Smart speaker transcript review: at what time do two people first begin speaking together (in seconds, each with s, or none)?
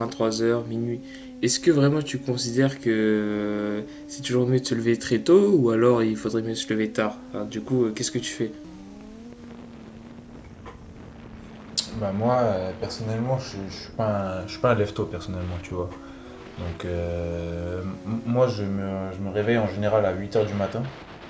none